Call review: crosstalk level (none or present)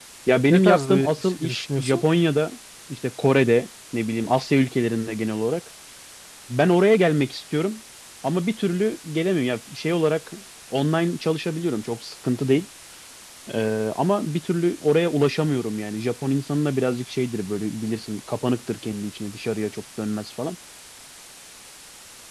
present